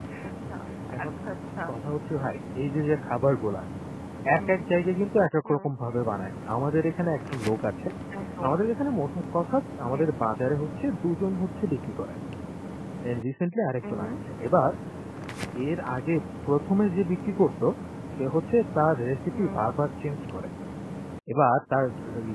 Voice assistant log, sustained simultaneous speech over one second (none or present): none